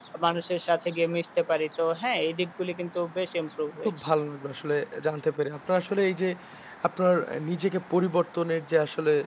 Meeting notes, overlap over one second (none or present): none